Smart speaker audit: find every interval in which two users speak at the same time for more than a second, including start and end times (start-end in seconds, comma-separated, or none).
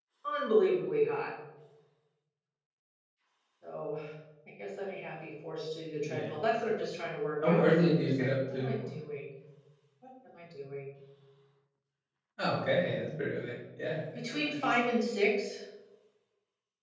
7.4-8.9